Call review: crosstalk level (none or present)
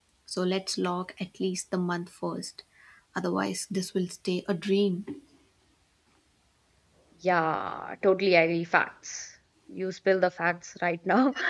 none